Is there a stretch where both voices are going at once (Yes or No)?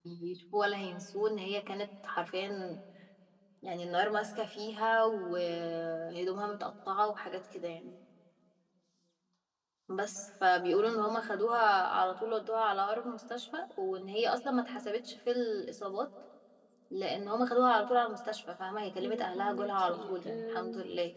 Yes